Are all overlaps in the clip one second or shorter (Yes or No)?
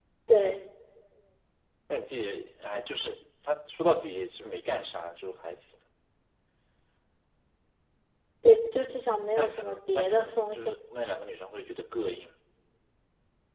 No